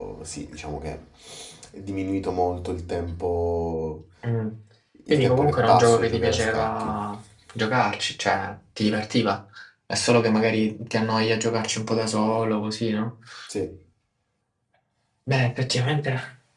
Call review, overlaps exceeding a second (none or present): present